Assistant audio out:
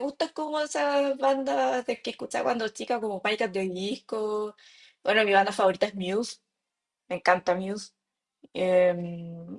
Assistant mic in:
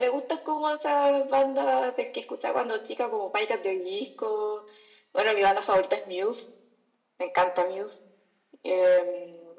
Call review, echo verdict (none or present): present